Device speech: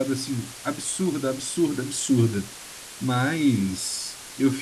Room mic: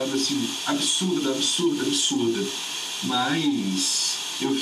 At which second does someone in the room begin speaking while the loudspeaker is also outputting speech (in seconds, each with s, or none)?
none